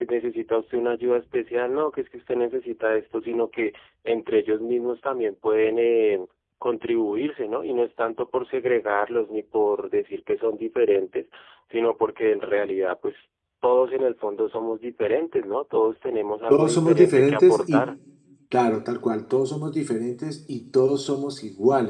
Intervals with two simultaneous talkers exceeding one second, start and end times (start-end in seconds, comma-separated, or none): 16.5-17.8